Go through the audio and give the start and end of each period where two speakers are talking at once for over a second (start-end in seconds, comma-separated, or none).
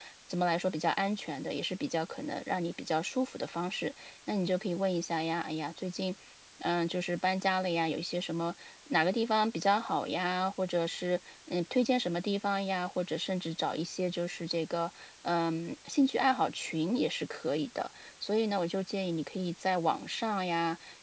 none